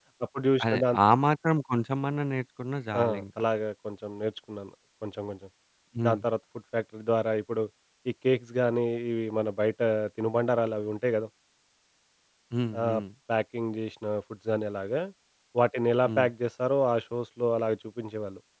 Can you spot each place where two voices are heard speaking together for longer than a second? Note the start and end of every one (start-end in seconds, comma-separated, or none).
none